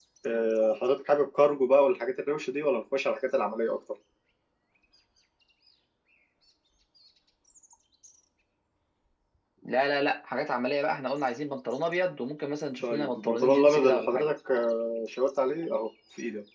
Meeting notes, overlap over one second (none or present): present